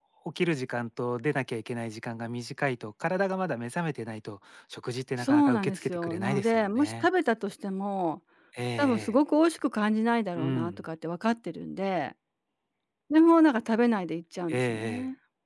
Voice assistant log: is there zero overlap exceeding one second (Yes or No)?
No